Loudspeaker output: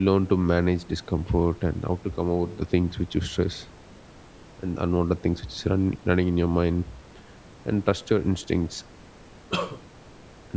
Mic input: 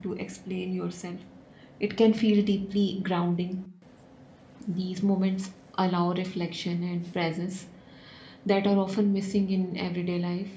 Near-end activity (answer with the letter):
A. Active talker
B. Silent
A